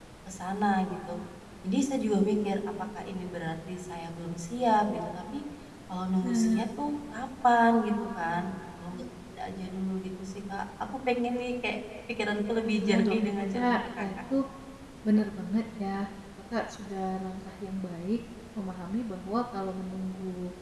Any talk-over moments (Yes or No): Yes